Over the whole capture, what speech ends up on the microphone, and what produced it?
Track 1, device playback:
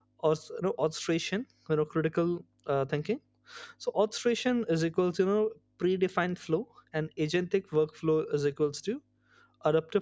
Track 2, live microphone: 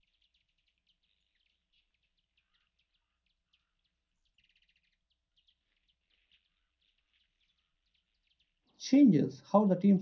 user only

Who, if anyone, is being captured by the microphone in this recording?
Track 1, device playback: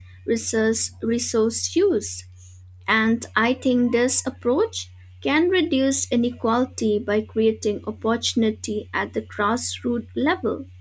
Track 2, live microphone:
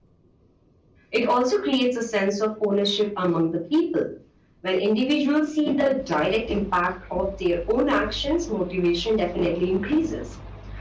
user only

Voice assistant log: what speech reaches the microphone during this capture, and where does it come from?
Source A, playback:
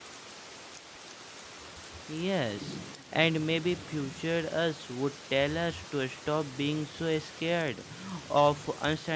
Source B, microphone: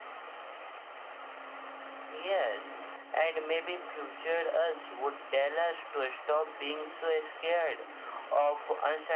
echo only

